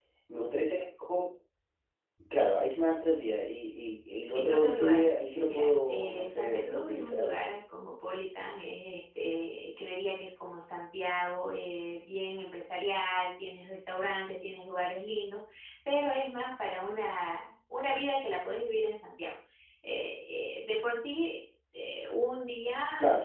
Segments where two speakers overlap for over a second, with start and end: 4.3-7.3

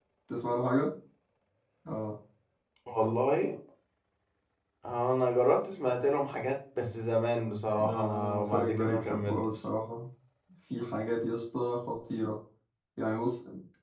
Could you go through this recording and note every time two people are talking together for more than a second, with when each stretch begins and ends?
7.8-9.5

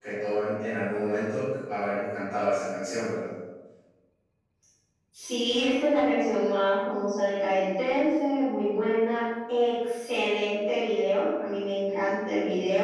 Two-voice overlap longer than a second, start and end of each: none

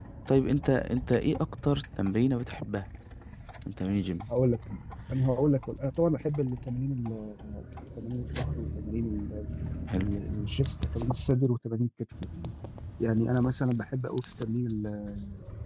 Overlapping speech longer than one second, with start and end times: none

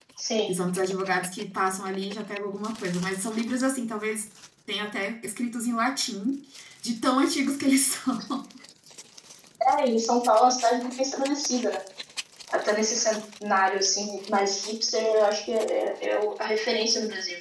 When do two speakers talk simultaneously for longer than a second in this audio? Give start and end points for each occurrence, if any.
none

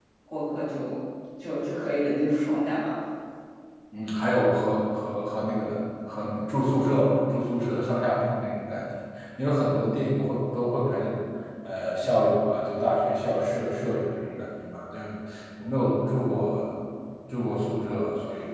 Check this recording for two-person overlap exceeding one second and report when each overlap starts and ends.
none

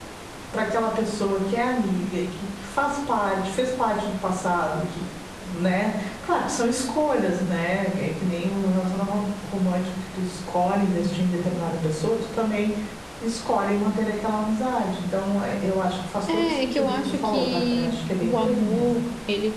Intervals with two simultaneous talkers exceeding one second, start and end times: 16.3-18.9

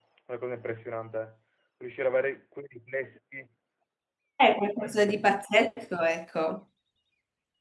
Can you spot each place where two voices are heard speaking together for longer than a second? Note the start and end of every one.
none

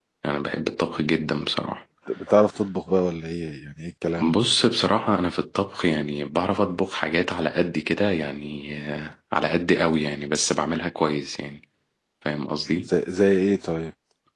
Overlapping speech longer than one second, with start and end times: none

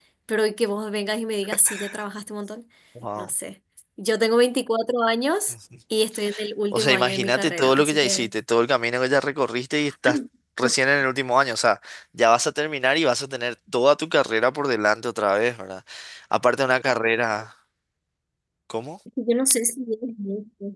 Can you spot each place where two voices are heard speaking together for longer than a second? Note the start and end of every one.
6.7-8.3

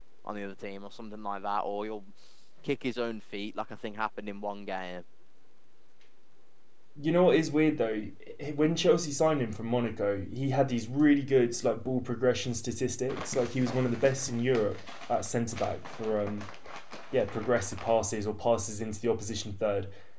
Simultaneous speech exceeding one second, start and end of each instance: none

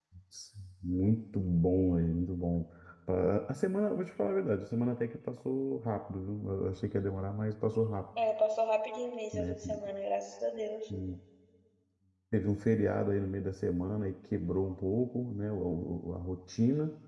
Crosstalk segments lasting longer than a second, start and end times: none

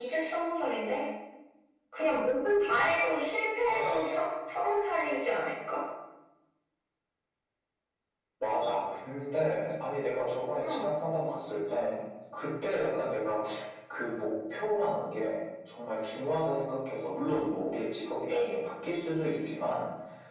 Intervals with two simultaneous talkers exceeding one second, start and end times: none

